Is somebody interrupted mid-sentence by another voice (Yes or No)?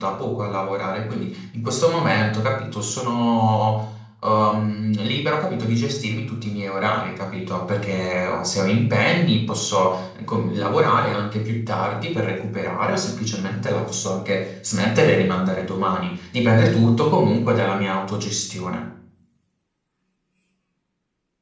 No